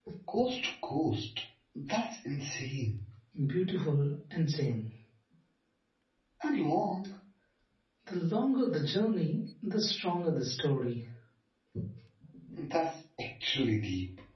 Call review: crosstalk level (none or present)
none